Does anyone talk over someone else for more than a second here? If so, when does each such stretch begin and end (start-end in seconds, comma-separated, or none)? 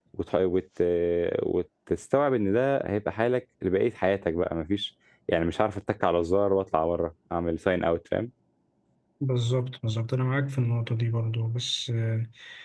none